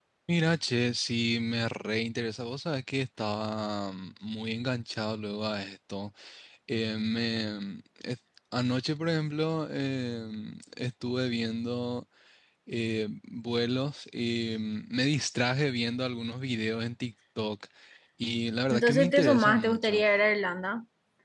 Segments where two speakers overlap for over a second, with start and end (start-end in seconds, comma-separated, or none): 18.7-20.0